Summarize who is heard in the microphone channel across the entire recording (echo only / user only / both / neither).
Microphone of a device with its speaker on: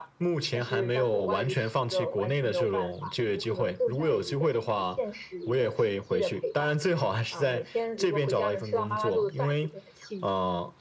echo only